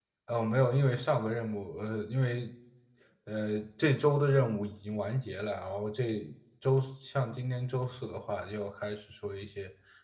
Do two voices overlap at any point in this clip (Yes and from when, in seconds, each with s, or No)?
No